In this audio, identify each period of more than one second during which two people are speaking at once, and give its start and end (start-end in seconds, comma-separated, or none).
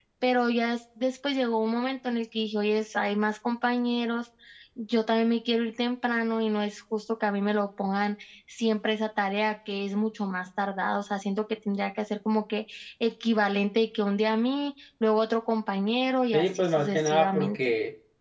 16.3-17.6